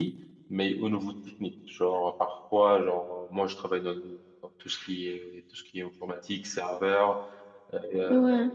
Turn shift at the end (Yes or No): No